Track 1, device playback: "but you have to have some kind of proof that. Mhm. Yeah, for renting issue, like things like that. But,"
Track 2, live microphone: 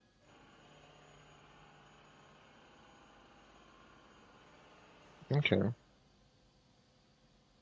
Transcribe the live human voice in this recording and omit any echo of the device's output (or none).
Okay.